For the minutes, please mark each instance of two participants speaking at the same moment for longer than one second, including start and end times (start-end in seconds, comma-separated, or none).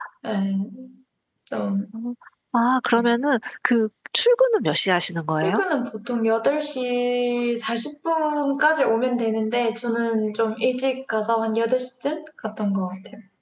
none